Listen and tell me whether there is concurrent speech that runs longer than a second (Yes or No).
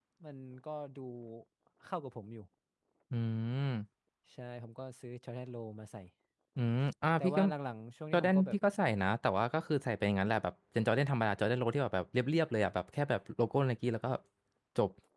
No